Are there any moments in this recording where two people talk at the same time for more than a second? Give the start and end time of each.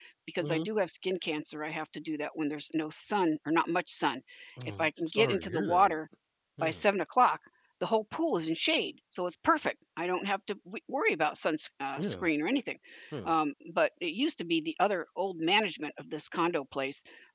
4.8-6.0

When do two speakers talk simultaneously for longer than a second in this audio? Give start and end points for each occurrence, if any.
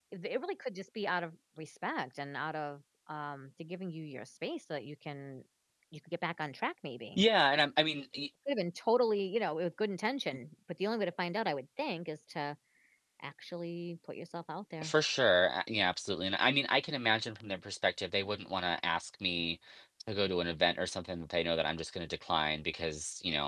none

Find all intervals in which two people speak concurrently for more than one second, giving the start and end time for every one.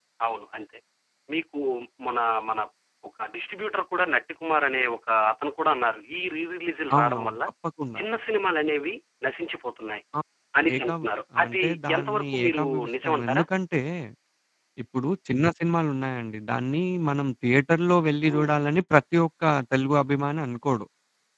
11.5-13.4

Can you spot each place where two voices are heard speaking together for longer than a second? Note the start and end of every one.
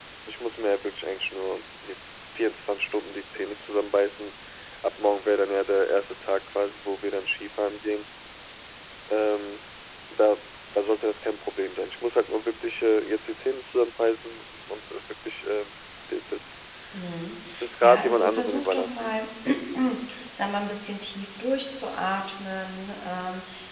17.8-19.1

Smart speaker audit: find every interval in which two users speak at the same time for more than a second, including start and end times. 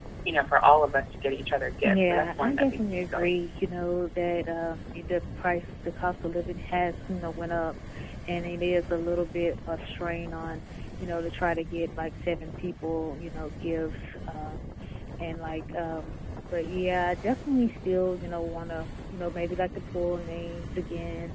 1.8-3.3

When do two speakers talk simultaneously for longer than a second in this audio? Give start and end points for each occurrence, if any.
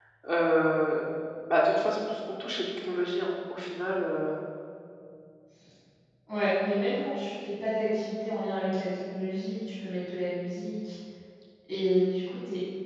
none

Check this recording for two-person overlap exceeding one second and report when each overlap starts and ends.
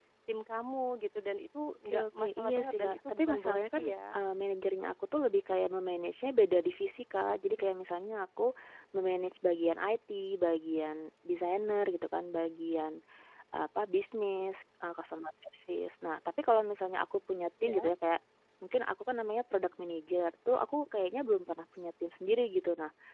1.8-4.2

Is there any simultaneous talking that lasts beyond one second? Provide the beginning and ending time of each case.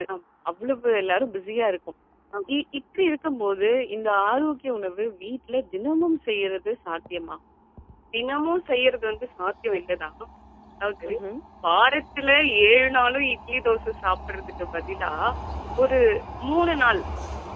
none

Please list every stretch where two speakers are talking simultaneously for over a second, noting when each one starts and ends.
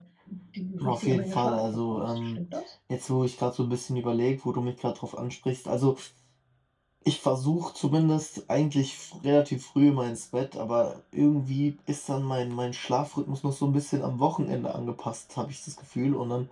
0.8-2.4

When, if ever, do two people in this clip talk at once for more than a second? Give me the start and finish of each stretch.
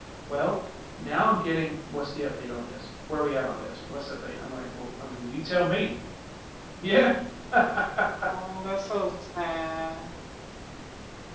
none

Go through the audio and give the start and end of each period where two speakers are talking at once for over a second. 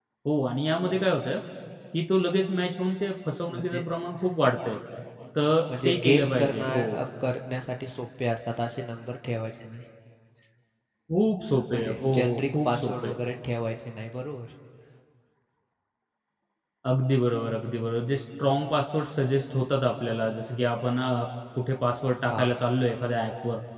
5.4-7.0, 11.7-13.1

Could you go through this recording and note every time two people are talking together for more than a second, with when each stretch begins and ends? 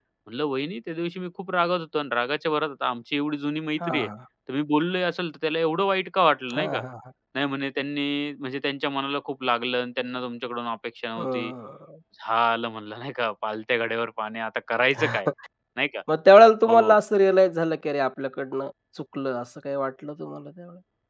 none

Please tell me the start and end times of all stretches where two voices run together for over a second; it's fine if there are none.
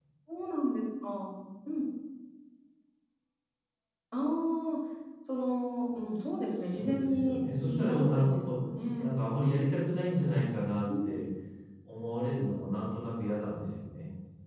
6.7-8.6

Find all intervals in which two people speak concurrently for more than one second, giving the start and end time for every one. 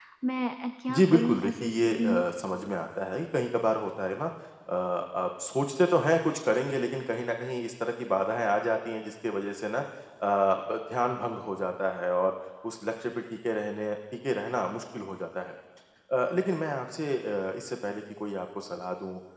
0.9-2.2

